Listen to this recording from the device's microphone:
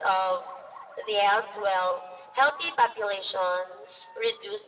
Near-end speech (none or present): none